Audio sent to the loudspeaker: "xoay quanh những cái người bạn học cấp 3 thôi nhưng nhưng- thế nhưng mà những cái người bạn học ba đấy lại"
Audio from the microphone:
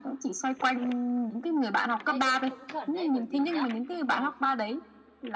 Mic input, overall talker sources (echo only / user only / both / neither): both